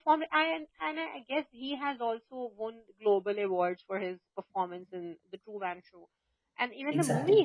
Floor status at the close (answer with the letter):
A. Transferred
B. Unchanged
B